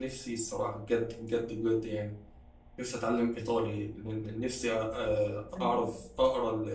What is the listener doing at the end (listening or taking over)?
listening